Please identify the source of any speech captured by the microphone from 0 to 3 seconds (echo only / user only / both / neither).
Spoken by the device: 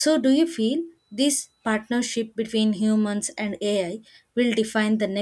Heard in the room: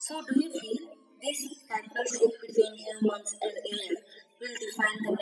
echo only